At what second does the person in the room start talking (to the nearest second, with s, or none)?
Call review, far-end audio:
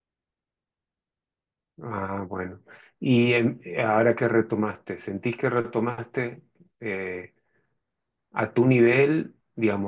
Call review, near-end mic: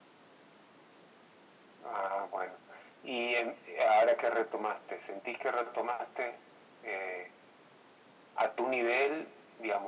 none